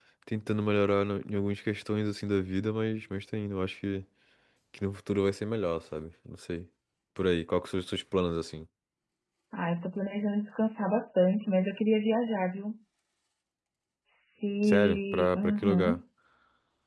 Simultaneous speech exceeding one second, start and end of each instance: 14.6-16.0

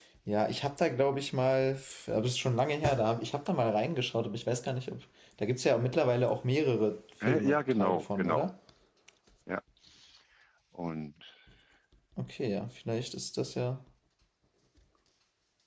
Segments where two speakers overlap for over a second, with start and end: 7.3-8.5

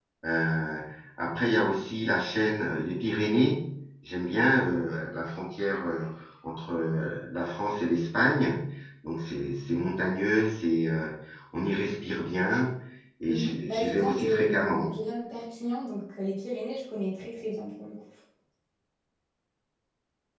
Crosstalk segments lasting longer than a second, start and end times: 13.3-14.9

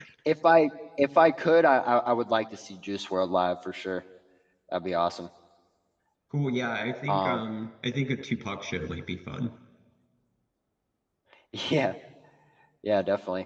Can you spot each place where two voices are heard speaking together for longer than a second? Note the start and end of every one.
none

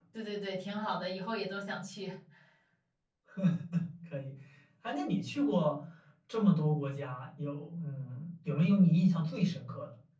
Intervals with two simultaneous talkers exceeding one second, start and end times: none

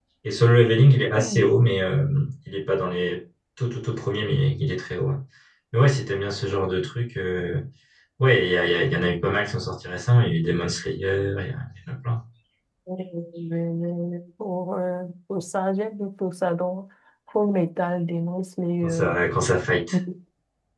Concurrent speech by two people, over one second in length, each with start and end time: none

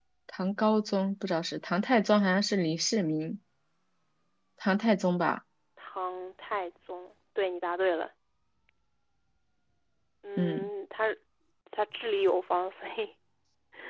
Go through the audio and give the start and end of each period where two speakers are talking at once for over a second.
none

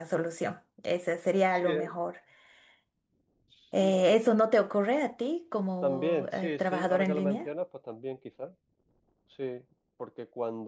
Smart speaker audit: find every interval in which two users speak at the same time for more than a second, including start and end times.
5.8-7.5

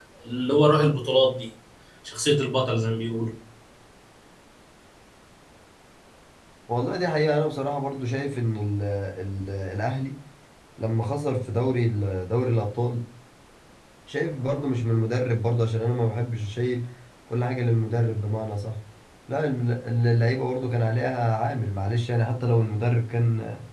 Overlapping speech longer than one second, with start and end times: none

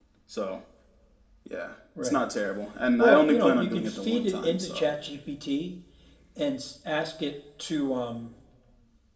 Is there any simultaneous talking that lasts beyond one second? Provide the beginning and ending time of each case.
3.0-4.9

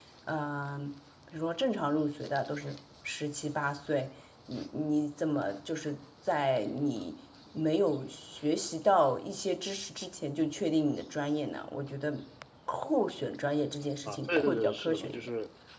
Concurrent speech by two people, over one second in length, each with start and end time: 14.1-15.3

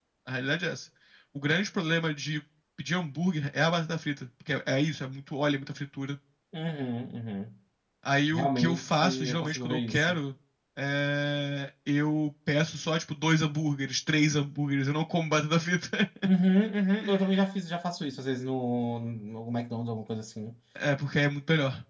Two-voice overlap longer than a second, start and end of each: 8.3-10.2

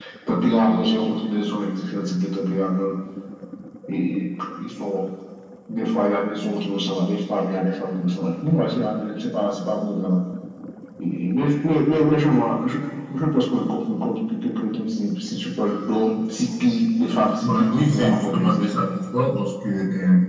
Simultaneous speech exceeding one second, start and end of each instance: 17.4-18.8

